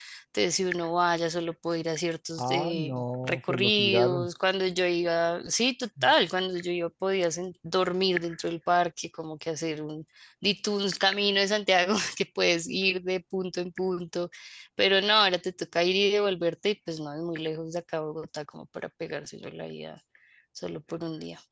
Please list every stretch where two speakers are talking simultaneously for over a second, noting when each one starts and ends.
2.4-4.3

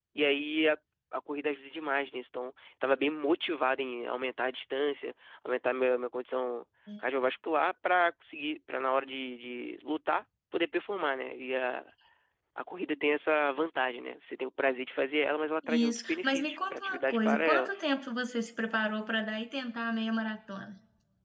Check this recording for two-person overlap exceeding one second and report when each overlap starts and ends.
15.7-17.8

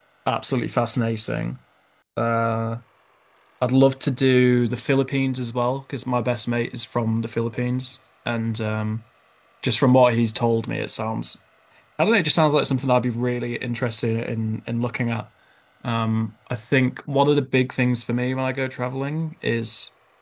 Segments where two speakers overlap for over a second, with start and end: none

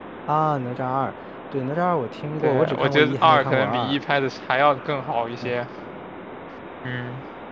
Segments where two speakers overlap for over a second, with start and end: 2.4-4.0

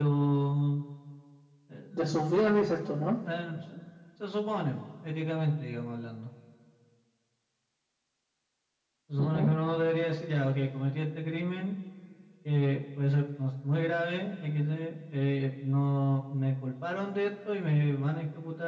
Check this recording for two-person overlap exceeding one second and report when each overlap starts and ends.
none

